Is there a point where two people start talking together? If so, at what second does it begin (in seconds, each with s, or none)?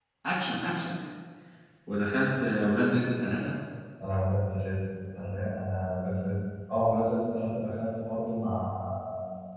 none